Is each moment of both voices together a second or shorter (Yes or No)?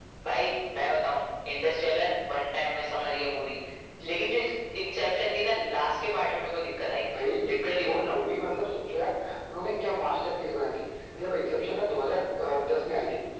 Yes